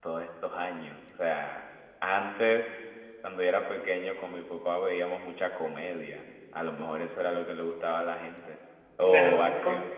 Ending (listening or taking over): taking over